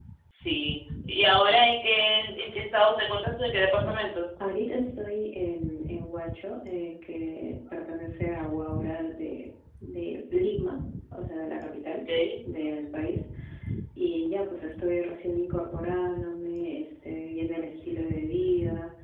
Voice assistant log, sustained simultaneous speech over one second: none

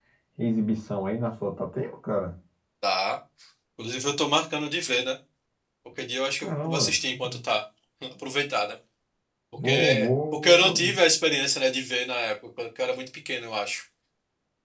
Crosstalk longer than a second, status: present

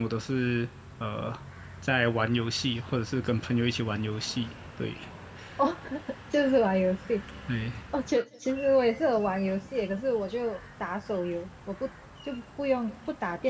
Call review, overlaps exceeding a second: none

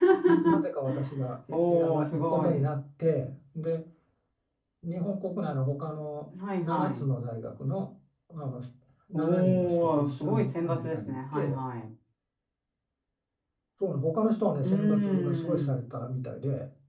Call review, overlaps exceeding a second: present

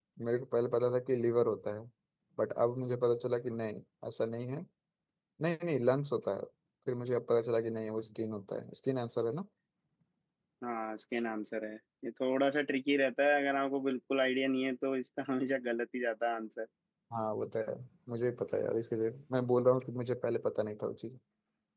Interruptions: none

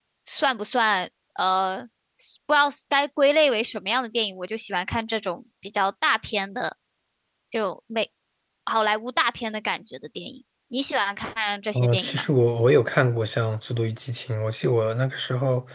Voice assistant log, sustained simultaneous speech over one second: none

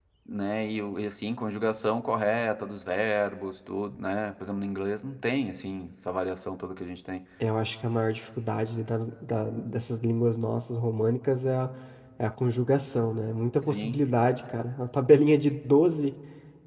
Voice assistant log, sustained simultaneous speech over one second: none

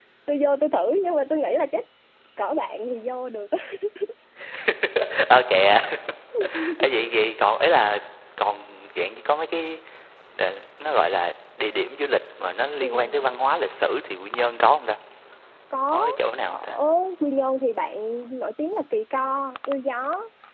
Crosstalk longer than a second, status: none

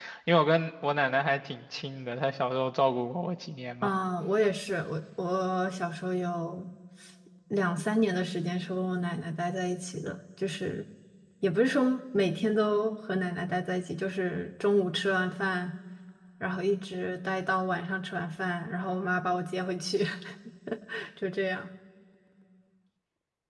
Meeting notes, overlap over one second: none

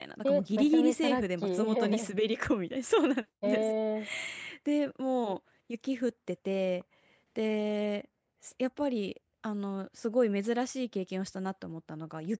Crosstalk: present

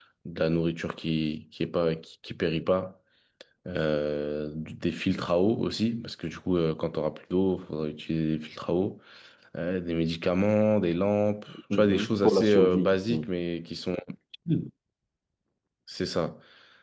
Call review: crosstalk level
present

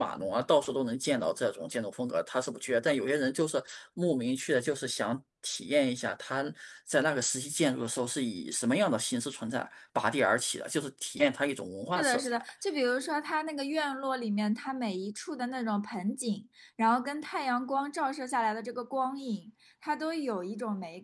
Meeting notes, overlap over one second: none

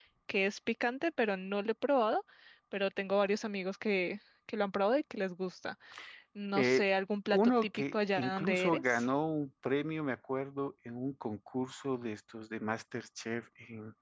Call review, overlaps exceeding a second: present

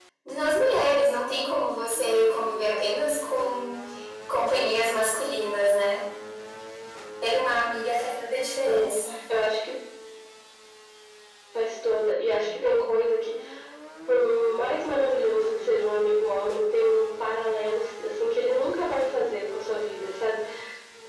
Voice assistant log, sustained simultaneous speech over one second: none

